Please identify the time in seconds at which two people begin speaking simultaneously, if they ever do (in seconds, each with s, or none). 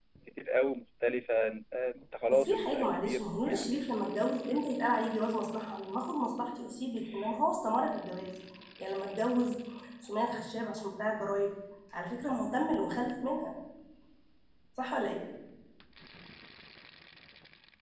2.3 s